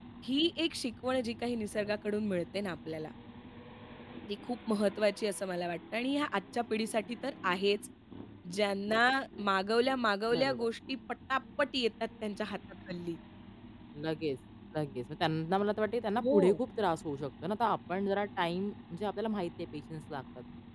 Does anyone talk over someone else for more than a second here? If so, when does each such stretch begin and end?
none

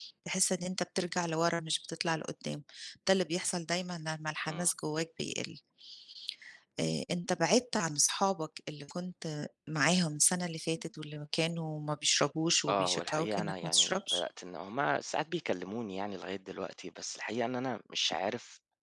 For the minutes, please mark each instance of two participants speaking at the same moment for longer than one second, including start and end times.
12.7-14.2

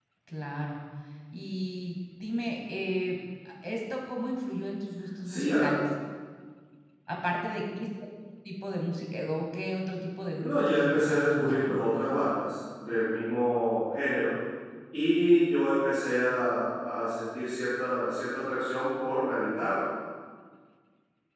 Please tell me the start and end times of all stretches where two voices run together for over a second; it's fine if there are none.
10.4-11.7

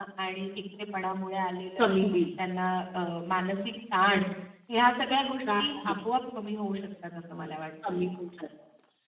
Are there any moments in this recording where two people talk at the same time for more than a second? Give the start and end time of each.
none

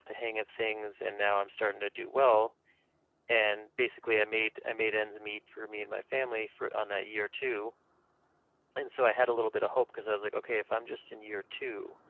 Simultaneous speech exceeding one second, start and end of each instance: none

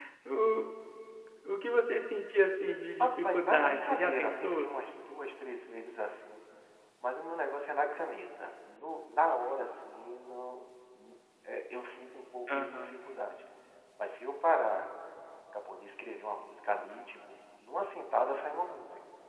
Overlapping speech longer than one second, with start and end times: 3.0-4.7

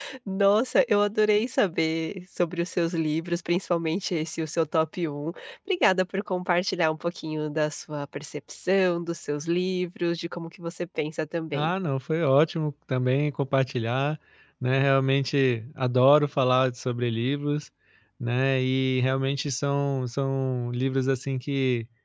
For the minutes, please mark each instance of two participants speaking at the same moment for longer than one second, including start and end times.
none

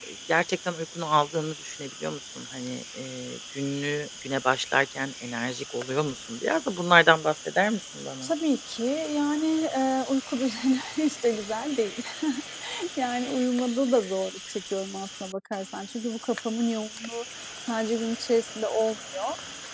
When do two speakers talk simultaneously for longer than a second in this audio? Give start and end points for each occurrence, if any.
none

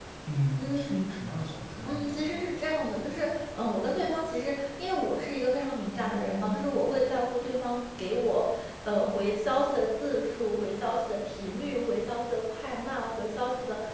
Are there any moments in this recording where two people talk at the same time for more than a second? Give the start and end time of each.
1.9-3.2

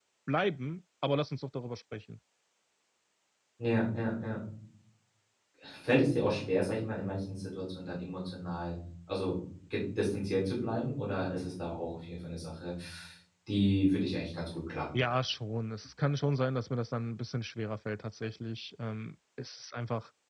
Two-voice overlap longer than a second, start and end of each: none

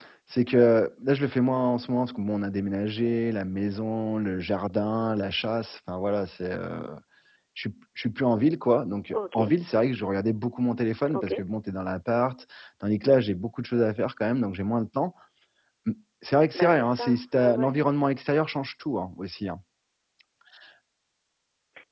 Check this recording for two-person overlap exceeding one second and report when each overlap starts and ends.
16.5-17.8

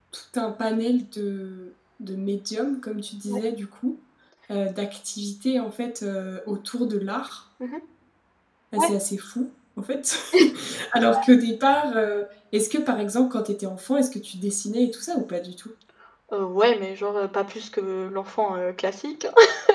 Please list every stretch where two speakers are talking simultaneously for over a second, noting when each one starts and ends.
none

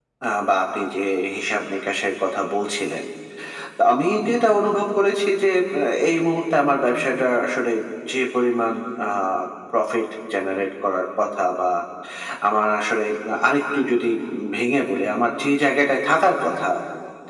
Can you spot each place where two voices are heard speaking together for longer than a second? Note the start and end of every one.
none

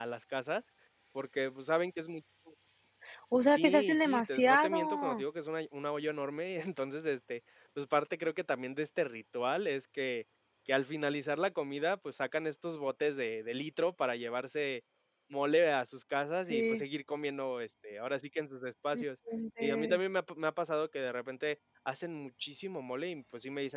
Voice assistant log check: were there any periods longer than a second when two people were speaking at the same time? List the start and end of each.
3.6-5.2

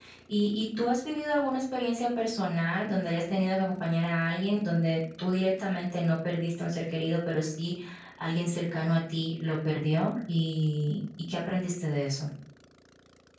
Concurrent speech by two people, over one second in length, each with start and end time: none

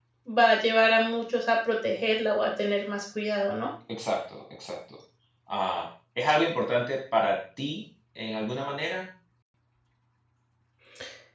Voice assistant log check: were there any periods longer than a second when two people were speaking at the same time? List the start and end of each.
none

